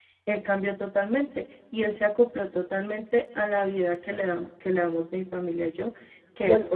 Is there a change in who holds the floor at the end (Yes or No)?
No